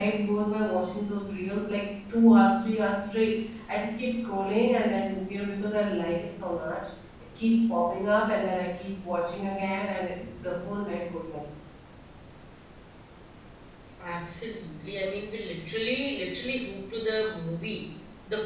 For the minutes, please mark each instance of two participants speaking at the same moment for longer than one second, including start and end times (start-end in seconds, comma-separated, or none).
none